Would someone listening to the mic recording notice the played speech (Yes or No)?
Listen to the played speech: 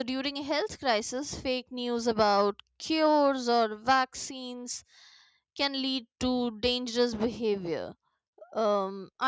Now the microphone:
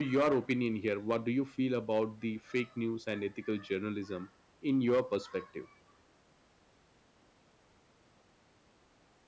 No